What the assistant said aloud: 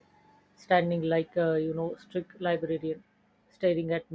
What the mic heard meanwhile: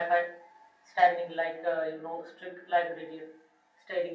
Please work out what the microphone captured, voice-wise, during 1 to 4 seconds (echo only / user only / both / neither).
echo only